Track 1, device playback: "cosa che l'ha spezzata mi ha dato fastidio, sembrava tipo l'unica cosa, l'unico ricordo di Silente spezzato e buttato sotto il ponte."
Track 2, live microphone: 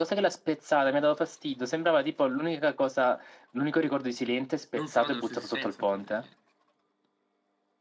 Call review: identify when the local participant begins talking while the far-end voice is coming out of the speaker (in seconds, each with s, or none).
4.7 s